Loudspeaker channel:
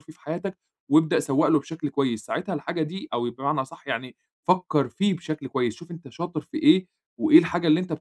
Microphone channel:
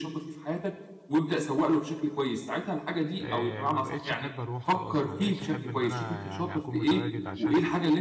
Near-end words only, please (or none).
آآ، ما بقيتش أحب أروح خلاص، ما بقيتش أحب إن أنا يعني أكون متواجد عشان